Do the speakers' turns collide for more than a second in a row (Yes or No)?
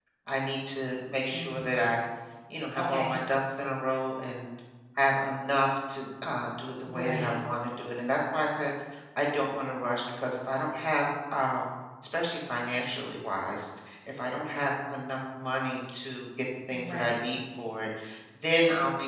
No